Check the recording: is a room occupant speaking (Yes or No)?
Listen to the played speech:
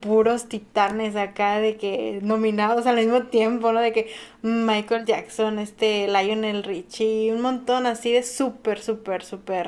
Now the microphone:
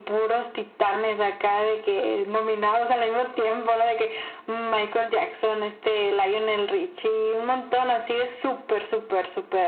No